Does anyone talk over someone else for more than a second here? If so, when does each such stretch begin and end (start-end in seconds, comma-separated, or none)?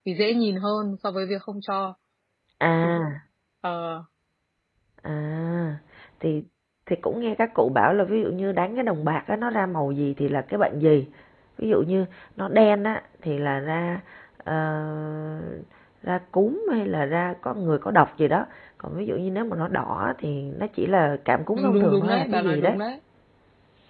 21.6-22.8